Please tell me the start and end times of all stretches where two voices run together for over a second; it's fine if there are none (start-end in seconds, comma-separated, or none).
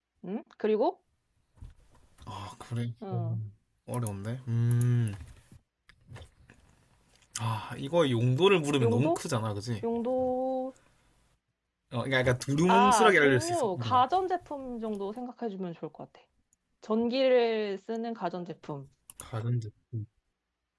12.7-14.0